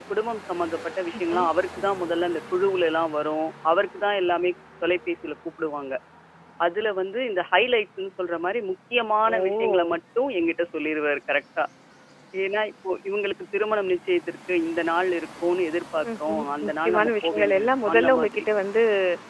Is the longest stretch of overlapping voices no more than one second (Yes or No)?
No